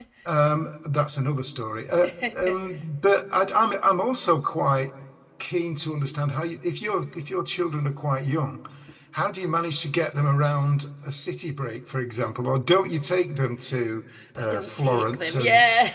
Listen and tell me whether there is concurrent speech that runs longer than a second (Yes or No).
Yes